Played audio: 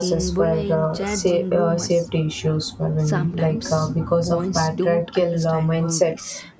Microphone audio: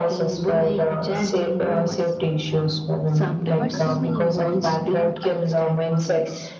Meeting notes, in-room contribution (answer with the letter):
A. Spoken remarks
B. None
A